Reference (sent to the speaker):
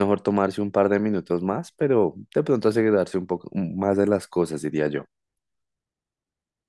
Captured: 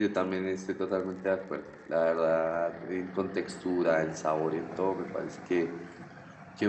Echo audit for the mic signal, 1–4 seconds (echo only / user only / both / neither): user only